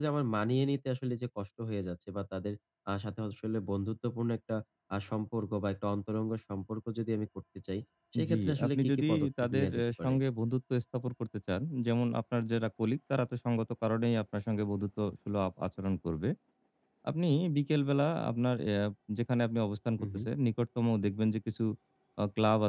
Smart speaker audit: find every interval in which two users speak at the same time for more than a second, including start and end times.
8.3-10.2

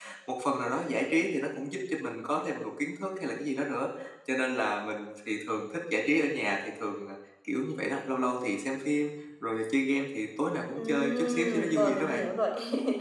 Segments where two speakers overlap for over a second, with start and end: 10.8-12.2

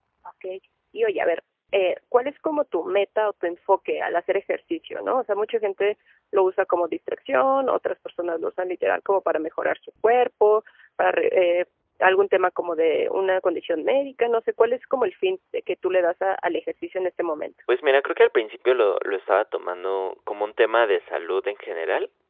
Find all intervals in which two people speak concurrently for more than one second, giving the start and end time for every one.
none

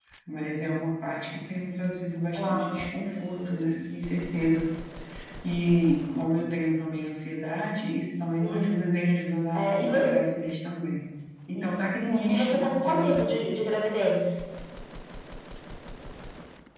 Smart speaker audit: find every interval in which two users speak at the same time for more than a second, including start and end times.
12.1-13.4

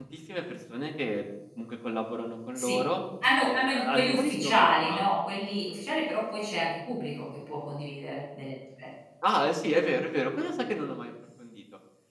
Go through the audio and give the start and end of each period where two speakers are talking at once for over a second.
3.4-5.0

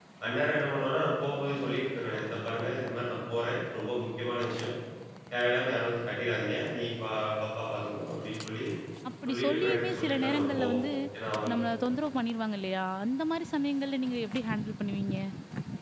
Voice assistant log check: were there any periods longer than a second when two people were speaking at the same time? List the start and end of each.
9.3-10.8

